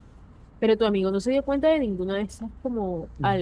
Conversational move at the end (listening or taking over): taking over